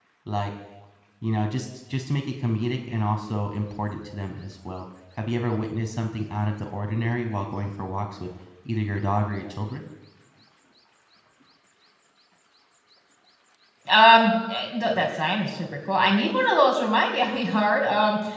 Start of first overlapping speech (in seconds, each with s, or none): none